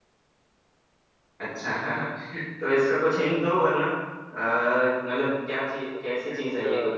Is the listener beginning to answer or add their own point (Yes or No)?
Yes